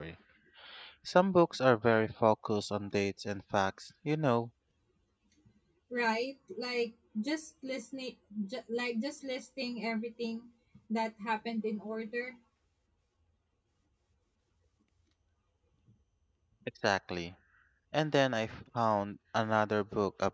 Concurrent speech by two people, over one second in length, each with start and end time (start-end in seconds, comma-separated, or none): none